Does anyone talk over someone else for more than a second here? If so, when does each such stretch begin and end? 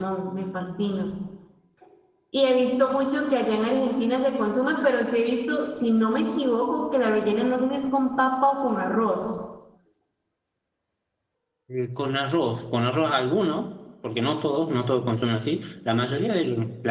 none

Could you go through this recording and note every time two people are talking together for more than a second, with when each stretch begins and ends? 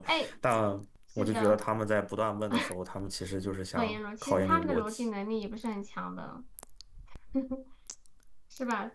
3.8-5.0

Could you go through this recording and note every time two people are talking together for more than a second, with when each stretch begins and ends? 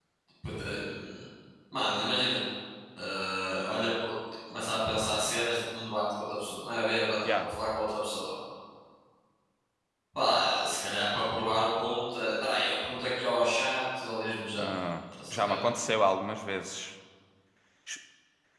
none

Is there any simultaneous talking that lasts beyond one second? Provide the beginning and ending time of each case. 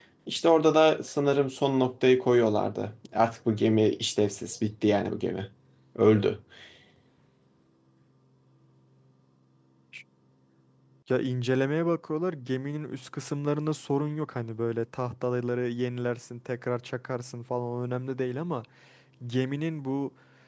none

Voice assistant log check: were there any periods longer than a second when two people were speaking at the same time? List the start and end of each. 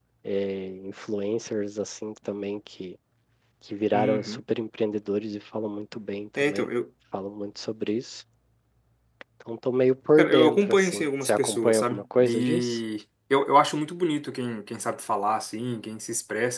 10.2-12.8

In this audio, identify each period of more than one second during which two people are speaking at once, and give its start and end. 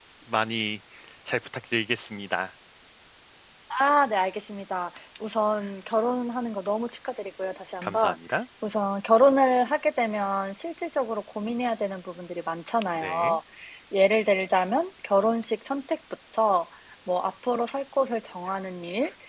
none

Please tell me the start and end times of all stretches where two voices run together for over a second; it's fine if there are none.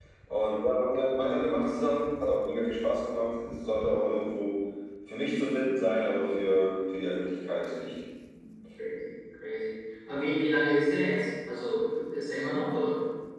none

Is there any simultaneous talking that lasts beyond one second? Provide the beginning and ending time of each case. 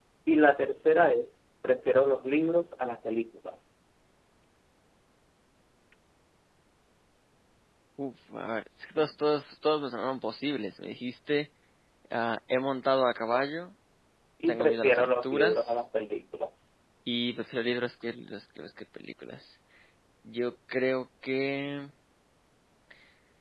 14.5-15.8

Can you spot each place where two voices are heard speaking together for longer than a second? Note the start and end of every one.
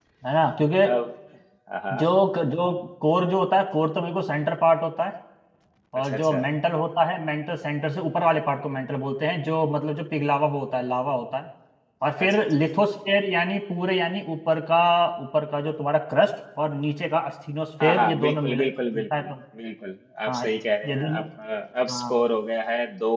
17.8-19.3

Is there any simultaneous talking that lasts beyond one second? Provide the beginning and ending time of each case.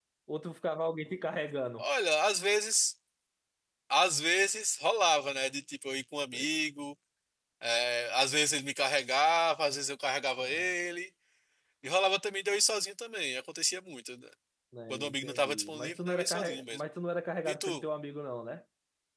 14.9-16.8

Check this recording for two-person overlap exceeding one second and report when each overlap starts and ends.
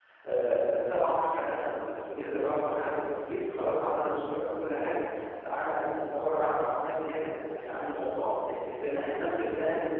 none

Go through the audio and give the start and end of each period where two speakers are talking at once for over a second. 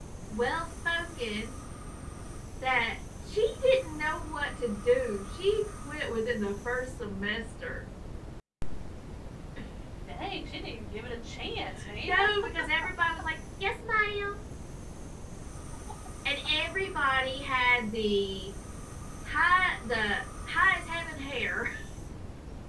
none

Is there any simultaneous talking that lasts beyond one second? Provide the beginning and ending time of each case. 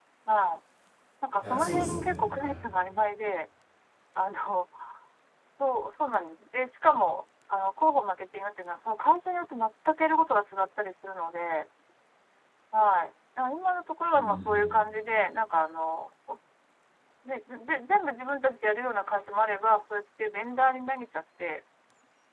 1.4-2.6

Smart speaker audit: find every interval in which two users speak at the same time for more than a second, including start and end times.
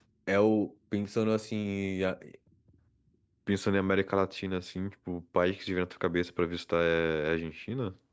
none

